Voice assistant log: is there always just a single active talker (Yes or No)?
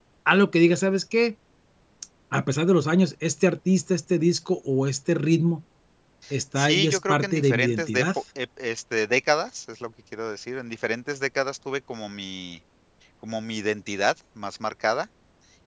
No